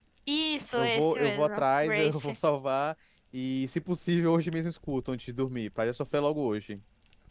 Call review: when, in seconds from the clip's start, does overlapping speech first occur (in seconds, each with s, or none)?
0.8 s